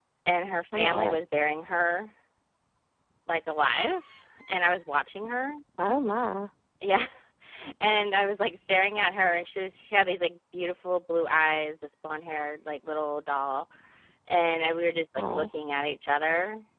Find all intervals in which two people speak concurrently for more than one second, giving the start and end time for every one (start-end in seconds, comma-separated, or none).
none